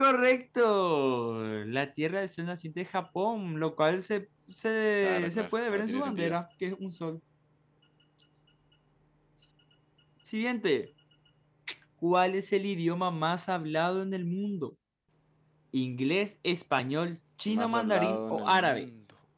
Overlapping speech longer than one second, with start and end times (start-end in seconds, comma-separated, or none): 5.0-6.4, 17.5-18.9